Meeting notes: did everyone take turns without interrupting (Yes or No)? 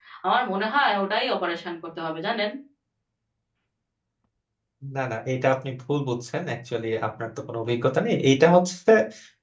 Yes